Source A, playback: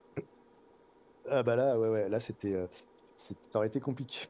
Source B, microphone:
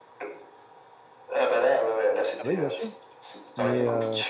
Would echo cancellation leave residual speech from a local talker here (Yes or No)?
Yes